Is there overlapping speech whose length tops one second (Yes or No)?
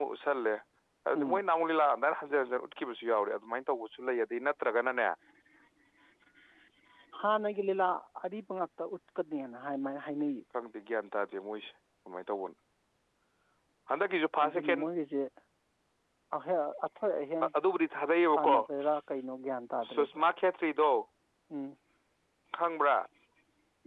No